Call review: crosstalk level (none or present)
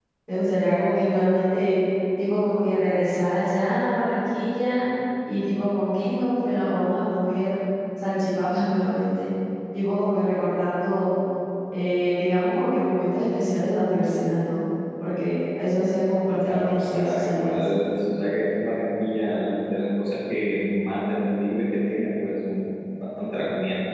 present